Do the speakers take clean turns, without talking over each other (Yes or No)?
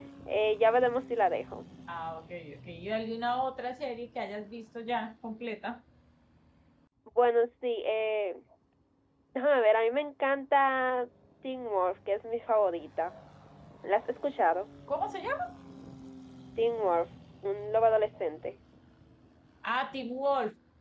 Yes